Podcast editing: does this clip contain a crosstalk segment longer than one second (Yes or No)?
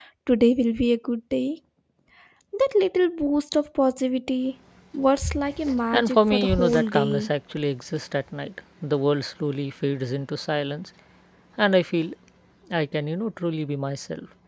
Yes